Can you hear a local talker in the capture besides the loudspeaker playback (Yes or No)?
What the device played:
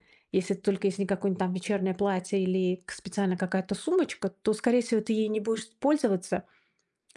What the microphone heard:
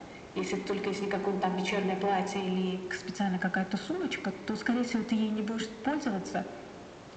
No